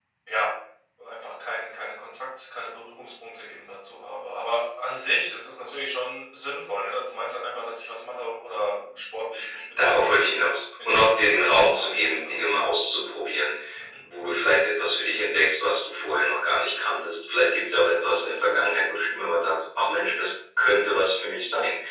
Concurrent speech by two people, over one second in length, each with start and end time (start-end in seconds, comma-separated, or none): 10.8-12.4